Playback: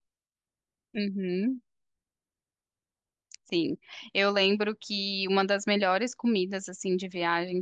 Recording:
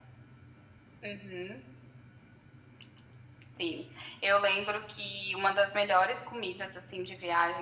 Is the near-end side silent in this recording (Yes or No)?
Yes